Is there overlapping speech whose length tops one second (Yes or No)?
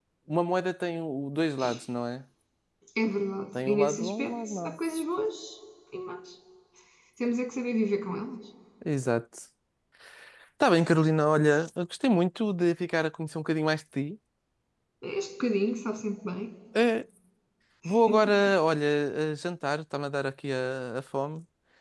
Yes